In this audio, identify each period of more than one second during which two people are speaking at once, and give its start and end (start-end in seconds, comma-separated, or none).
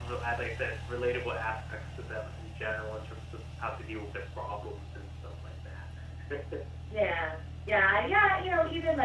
none